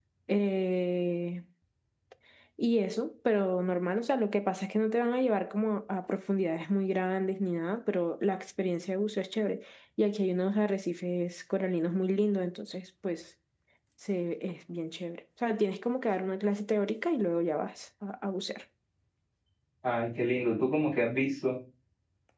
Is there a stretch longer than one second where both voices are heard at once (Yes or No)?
No